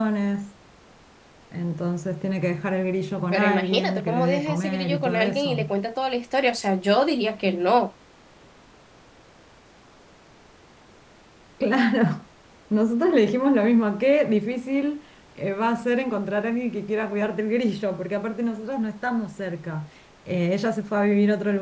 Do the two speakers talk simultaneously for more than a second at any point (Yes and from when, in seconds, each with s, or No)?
Yes, from 3.3 s